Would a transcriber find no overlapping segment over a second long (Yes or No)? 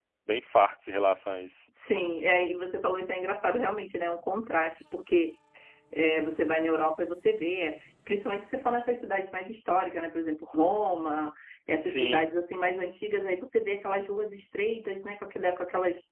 Yes